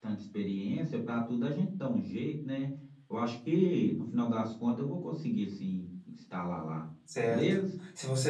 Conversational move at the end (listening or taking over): taking over